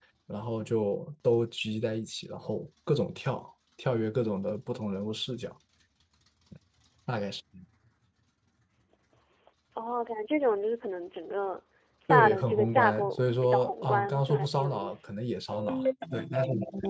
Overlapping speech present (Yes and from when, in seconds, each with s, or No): Yes, from 12.1 s